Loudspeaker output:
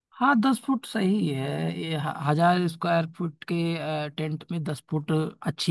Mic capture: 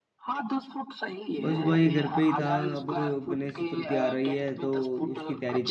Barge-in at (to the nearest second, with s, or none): 1 s